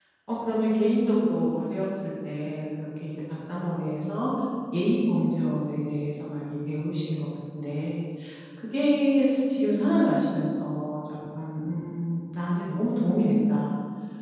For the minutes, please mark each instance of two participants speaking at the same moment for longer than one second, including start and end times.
none

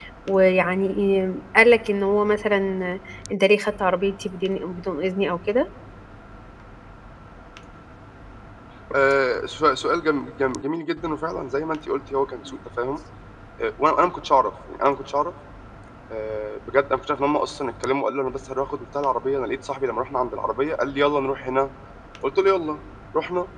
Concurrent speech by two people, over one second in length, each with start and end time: none

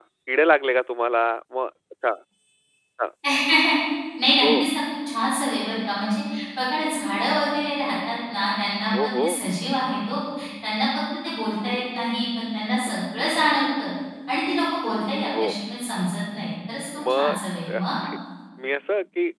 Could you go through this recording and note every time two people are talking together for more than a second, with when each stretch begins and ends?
none

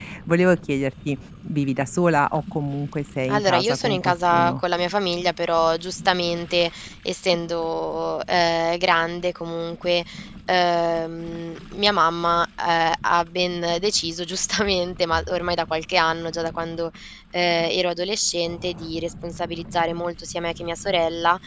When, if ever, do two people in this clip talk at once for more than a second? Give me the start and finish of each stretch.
3.3-4.6

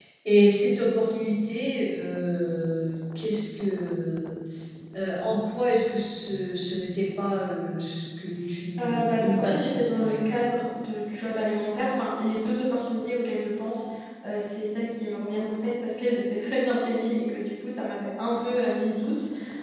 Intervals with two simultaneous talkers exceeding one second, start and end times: 8.8-10.4

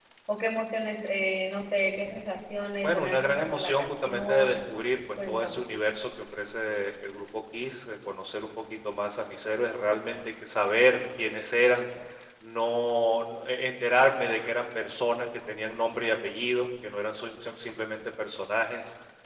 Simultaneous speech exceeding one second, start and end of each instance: 2.8-4.5

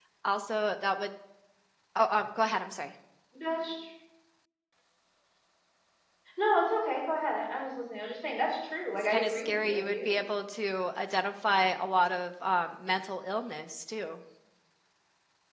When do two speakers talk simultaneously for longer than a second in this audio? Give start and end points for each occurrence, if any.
8.9-10.2

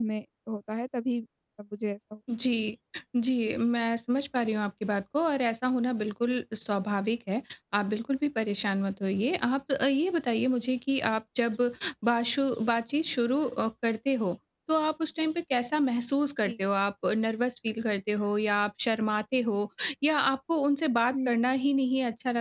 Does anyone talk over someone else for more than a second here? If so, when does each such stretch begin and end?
none

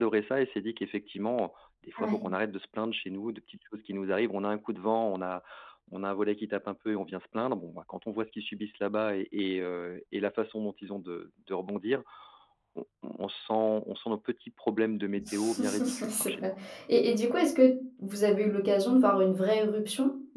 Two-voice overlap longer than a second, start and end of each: 15.3-16.5

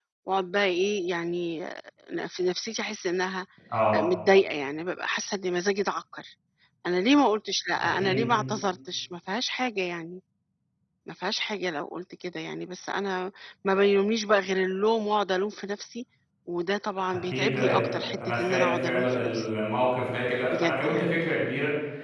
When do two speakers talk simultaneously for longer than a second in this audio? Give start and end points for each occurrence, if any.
17.1-19.5

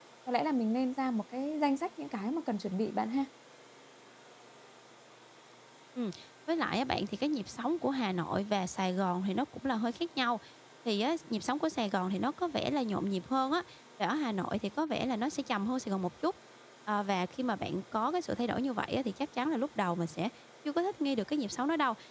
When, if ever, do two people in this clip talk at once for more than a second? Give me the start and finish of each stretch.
none

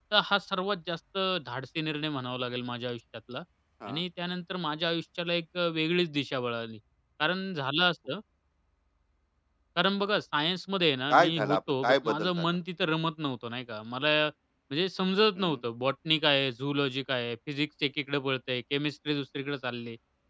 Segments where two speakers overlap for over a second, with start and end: 11.1-12.5

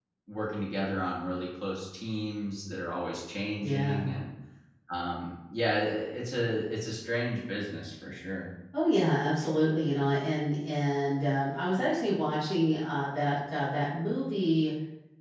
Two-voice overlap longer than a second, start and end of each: none

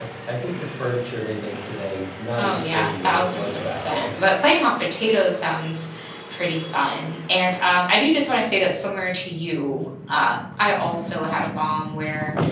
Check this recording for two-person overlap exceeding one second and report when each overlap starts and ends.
2.4-4.1

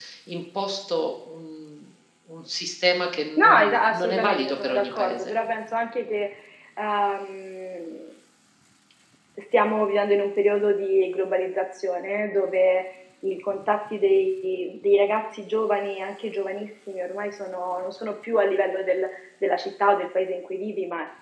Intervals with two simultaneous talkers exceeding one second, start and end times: 3.4-5.3

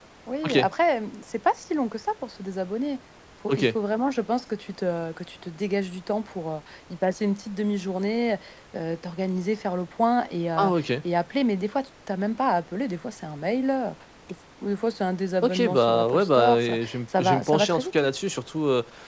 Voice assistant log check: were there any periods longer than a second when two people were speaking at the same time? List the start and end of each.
15.4-18.1

